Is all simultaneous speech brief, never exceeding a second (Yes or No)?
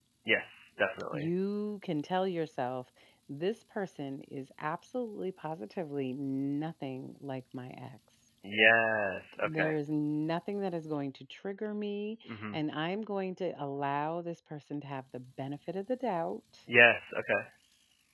Yes